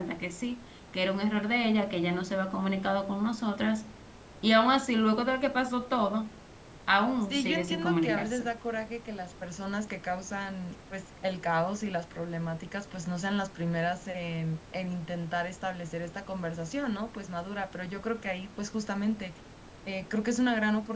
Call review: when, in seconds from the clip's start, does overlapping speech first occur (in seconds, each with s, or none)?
7.2 s